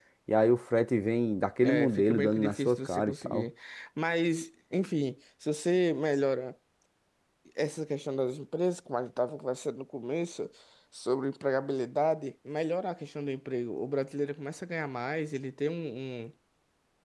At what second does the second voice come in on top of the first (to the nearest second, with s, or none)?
2 s